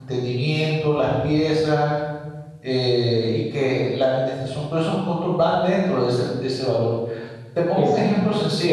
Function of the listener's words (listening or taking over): taking over